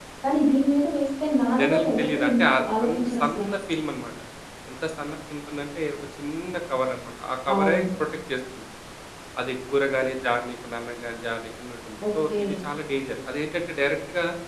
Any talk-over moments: Yes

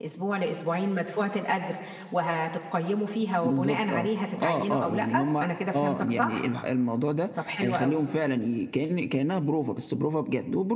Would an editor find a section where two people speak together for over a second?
Yes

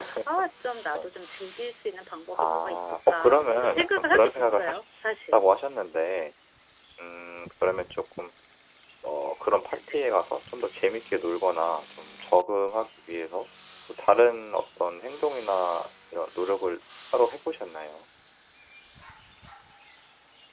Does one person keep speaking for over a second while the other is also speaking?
Yes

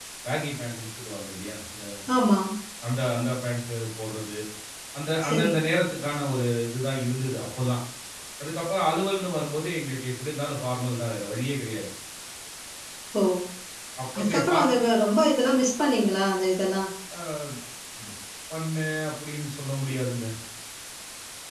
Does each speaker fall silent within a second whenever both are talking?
Yes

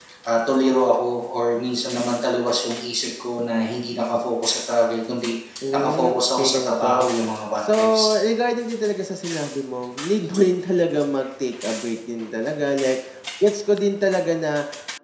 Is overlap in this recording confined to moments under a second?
No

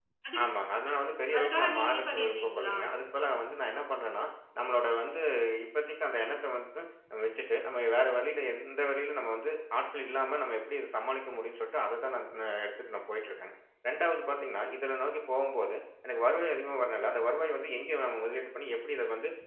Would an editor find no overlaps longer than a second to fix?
No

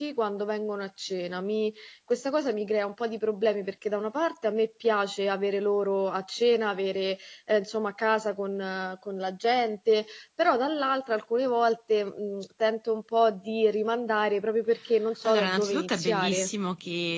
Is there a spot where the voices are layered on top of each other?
Yes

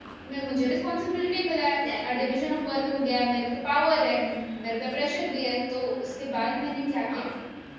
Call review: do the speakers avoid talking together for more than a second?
Yes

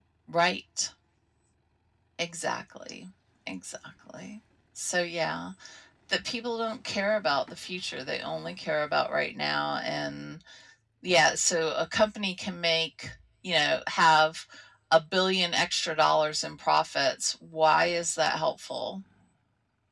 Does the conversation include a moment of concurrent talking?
No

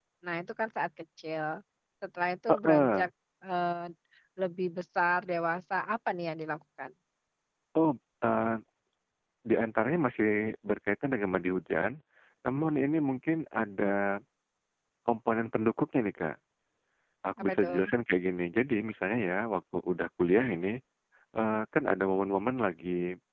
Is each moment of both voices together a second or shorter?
Yes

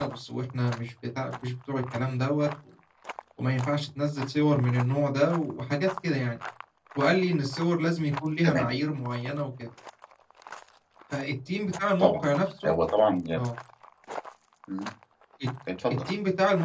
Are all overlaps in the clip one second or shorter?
Yes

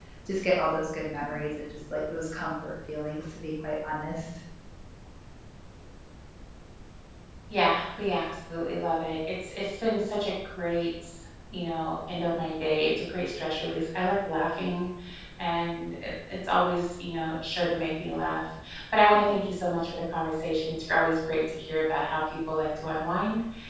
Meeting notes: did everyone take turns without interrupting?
Yes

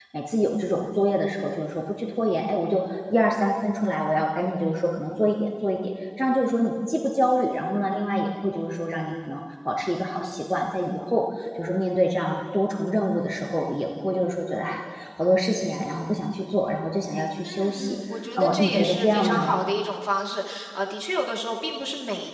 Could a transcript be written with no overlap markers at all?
No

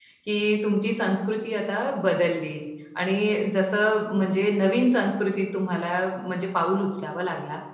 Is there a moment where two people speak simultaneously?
No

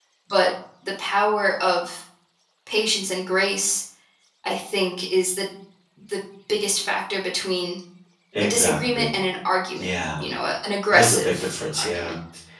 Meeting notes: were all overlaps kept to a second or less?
No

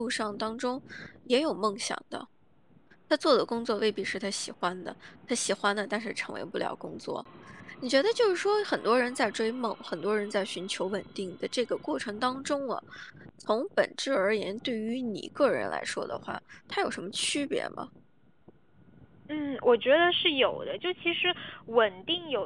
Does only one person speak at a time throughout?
Yes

